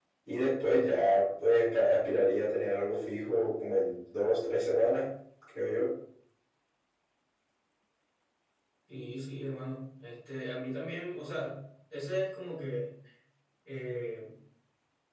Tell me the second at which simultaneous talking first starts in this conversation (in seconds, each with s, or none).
none